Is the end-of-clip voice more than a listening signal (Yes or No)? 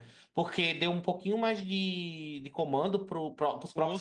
No